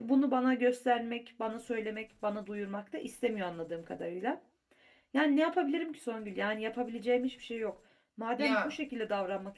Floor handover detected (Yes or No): No